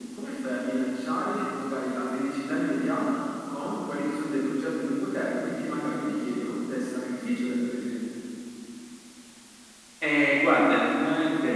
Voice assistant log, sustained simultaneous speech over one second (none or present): none